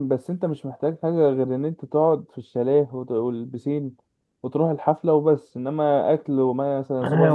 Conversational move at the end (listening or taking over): taking over